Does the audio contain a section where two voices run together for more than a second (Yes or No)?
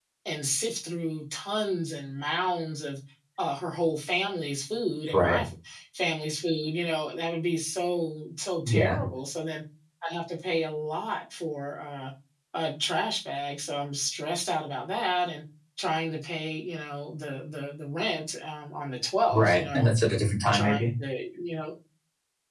No